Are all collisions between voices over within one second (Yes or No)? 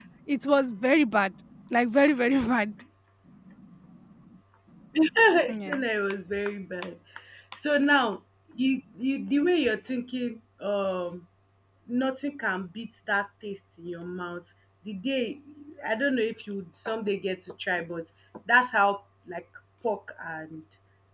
Yes